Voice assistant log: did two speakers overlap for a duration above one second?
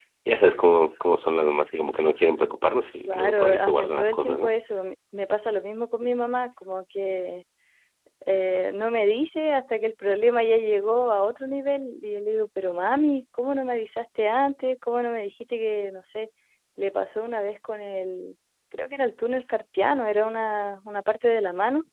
Yes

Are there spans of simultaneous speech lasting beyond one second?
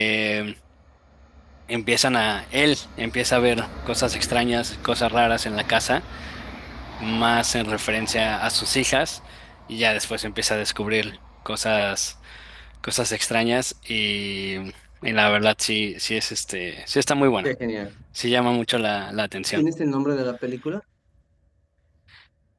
No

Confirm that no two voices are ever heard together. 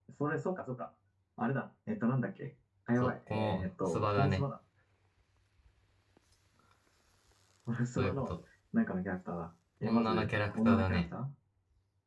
No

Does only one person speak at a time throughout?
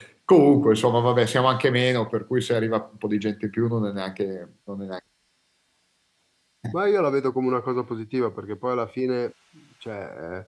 Yes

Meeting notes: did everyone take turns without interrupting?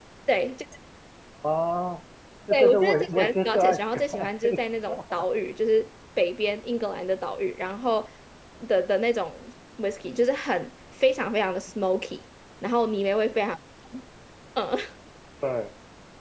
No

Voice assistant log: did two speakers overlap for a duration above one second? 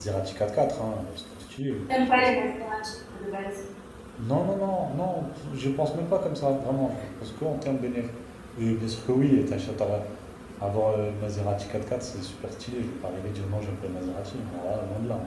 No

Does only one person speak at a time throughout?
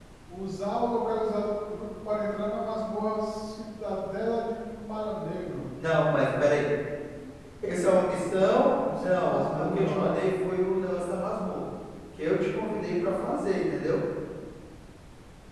No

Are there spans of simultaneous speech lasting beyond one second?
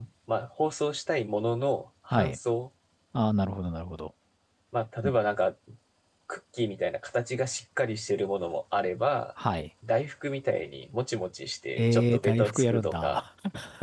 Yes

